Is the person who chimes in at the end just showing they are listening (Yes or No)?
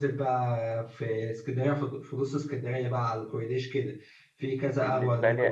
Yes